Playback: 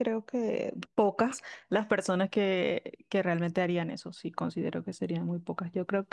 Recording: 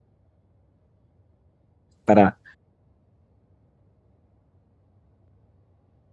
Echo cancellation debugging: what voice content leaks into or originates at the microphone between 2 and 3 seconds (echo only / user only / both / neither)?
user only